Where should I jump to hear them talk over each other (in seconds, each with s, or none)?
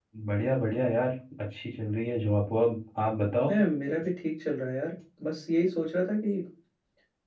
none